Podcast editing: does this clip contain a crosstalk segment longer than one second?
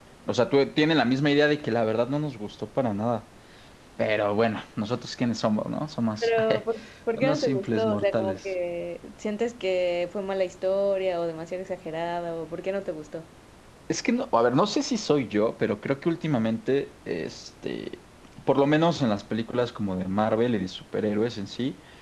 Yes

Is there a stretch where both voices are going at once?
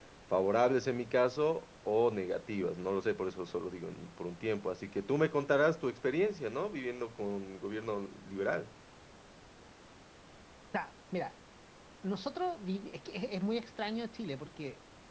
No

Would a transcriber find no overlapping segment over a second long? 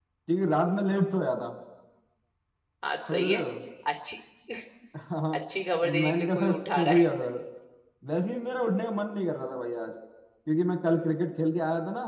No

